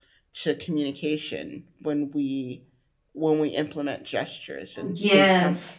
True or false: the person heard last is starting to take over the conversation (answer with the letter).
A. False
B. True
B